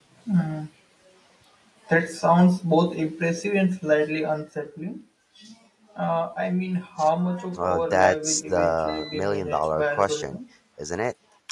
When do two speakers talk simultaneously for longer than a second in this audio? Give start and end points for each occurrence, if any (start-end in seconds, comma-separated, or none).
7.5-10.4